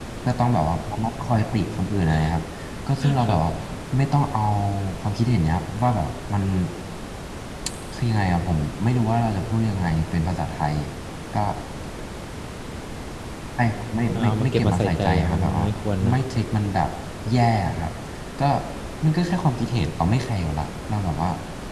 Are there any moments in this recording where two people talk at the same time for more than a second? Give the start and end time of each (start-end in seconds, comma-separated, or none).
14.1-15.7